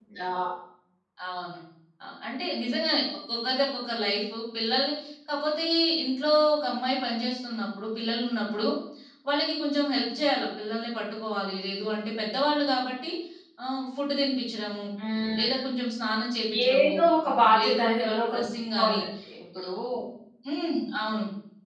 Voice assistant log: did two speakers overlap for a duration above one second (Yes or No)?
Yes